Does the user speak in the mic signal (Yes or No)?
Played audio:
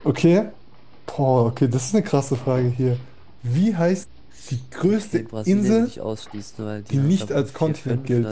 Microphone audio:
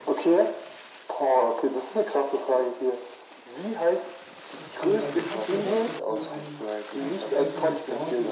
Yes